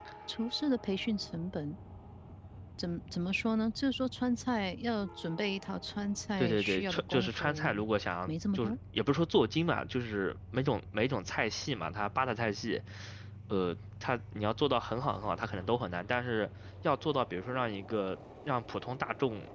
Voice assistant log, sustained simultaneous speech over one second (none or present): present